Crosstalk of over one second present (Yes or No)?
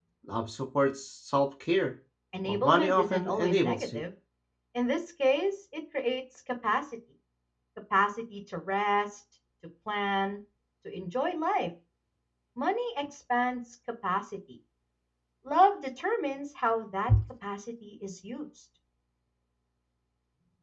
Yes